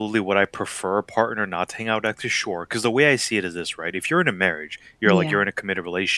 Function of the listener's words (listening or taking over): listening